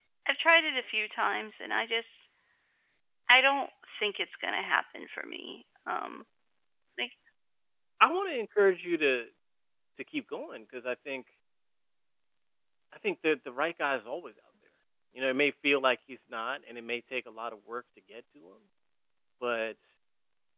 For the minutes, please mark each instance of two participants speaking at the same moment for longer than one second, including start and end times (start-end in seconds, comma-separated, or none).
none